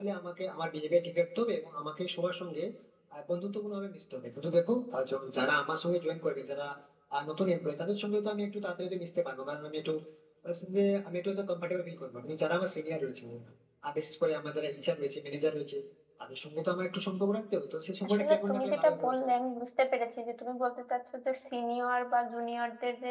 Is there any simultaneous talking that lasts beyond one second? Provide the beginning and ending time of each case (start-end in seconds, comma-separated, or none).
18.0-19.2